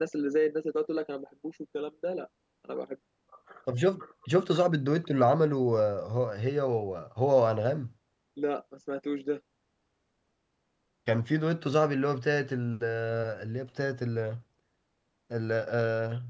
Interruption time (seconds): none

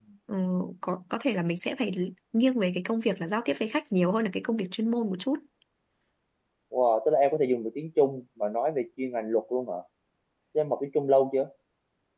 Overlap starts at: none

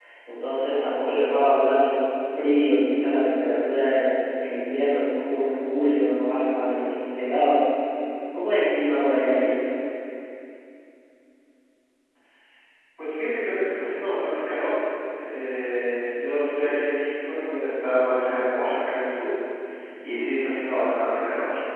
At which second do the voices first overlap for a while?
none

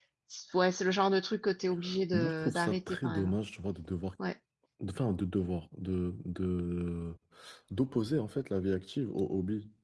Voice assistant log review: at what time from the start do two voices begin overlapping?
2.1 s

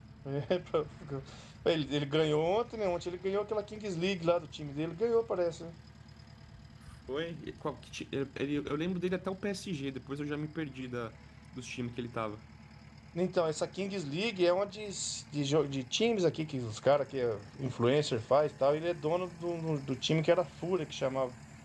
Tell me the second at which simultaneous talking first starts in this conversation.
none

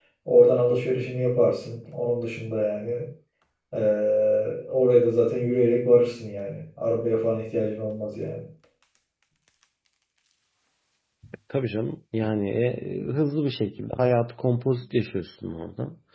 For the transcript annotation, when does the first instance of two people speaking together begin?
none

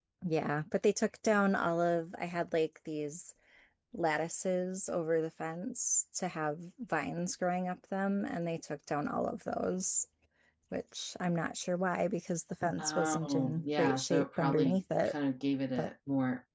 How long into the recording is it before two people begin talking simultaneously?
12.8 s

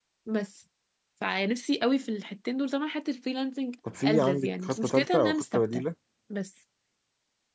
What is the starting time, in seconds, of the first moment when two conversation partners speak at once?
3.9 s

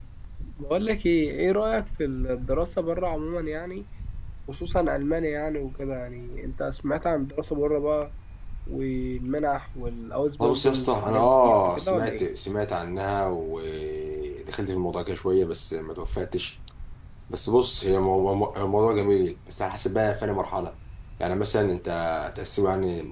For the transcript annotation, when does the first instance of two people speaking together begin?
10.4 s

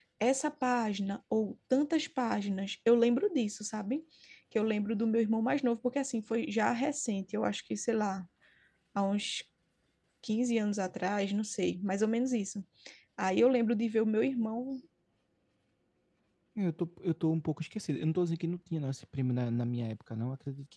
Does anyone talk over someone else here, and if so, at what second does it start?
none

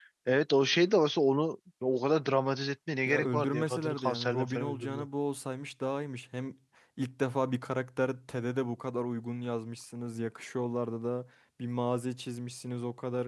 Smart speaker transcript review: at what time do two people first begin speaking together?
3.1 s

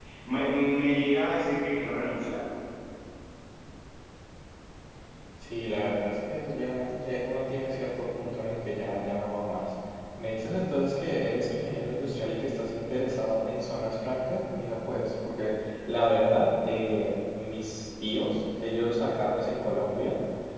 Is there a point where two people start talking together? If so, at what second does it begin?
none

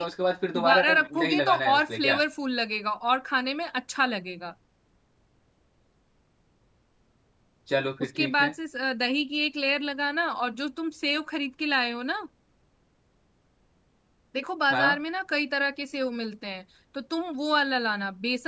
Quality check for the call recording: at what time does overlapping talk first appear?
0.5 s

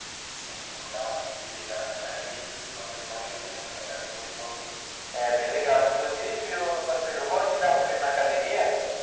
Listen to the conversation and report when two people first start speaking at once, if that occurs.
none

